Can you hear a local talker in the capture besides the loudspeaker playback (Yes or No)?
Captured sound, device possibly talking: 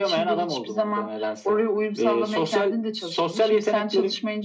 No